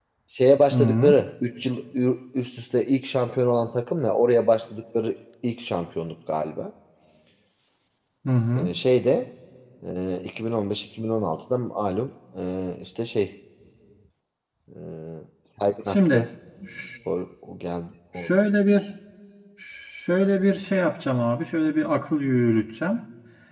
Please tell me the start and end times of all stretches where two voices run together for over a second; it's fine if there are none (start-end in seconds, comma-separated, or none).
none